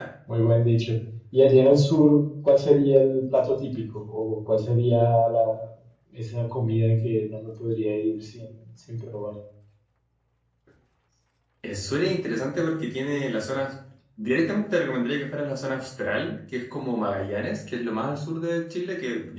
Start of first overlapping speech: none

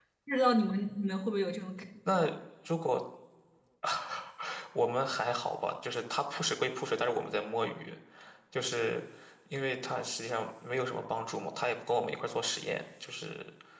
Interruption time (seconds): none

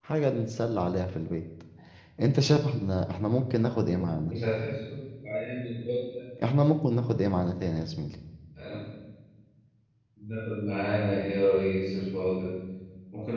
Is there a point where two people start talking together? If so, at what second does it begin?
none

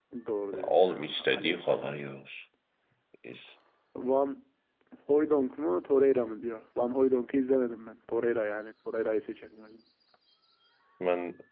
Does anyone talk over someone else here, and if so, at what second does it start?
0.6 s

